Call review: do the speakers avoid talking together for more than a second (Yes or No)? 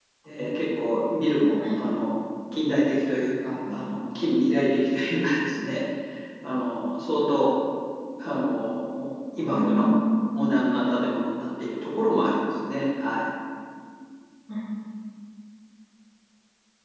Yes